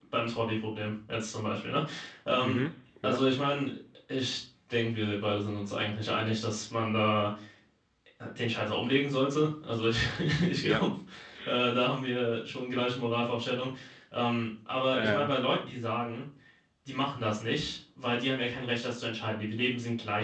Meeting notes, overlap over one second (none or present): none